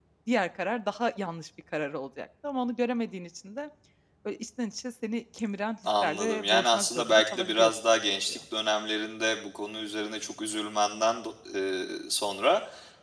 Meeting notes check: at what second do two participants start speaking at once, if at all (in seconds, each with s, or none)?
5.8 s